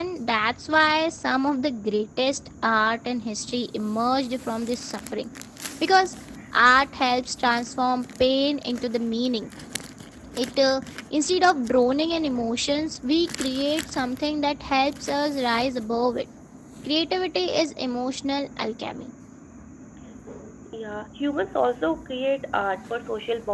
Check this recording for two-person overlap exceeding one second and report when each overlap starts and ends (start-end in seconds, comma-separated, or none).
none